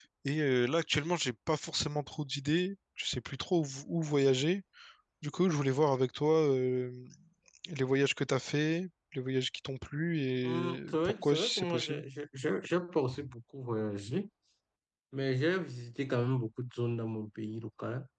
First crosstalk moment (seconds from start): 10 s

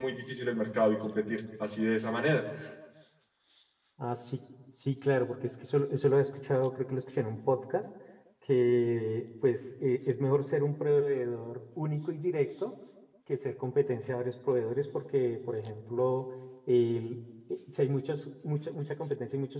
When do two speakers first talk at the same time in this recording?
none

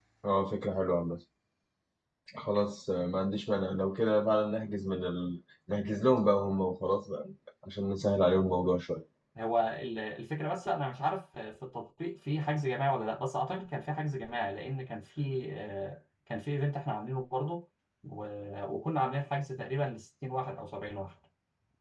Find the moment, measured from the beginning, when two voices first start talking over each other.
none

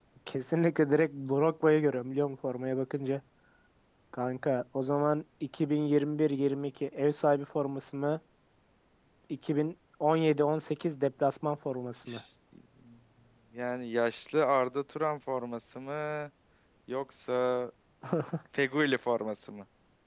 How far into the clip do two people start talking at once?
none

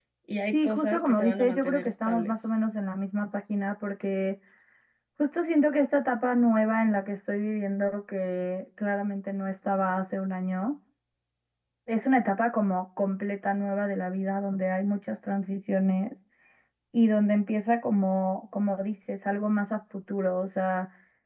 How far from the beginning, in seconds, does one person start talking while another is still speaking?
1 s

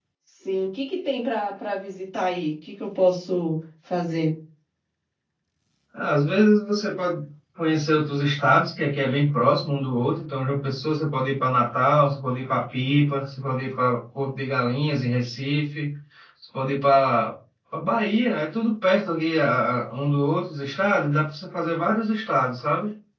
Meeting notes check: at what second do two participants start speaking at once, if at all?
none

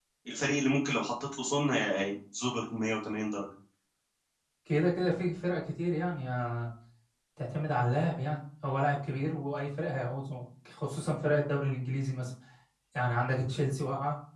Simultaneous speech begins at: none

